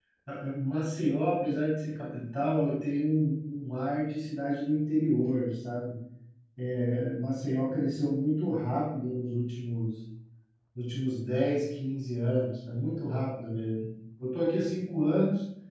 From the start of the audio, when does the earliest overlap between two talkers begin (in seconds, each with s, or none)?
none